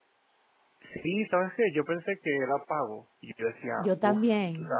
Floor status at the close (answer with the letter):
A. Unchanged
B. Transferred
A